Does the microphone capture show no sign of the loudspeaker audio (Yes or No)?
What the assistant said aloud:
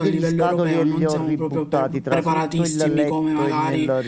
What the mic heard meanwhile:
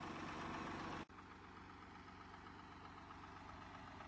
Yes